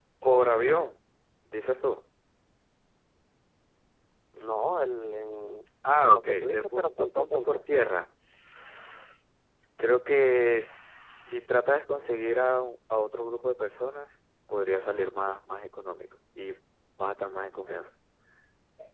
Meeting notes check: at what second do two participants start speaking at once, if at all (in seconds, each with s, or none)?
6.1 s